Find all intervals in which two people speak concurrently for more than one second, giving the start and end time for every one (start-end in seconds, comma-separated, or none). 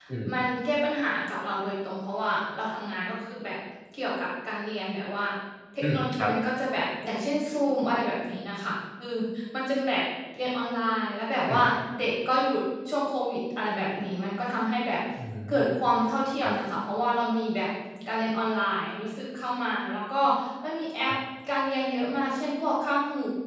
none